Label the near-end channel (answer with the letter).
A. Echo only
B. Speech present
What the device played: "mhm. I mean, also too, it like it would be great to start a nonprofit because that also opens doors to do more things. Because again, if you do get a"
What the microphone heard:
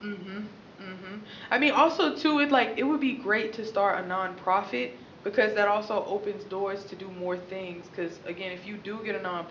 A